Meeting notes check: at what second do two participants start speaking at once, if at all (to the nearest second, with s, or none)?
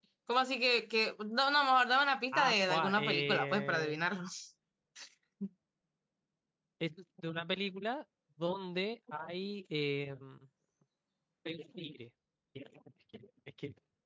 2 s